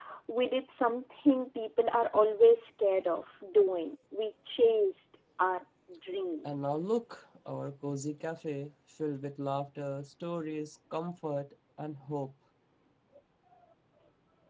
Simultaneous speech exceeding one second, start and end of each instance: none

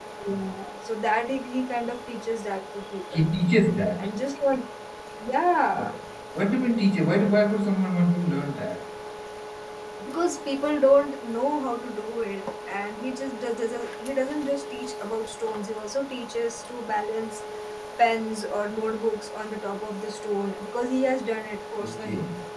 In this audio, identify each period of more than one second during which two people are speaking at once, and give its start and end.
none

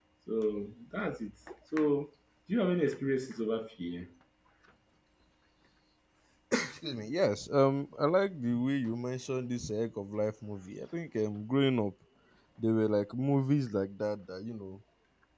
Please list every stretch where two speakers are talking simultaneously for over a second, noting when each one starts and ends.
none

